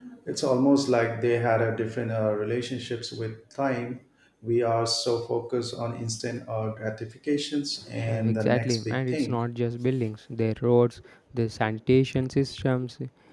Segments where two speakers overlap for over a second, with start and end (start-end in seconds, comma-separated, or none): 8.1-9.4